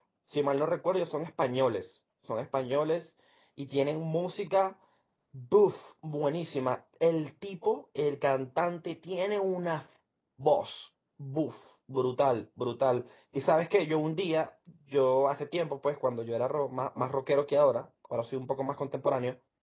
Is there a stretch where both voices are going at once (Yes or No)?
No